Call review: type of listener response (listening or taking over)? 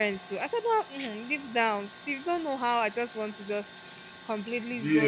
listening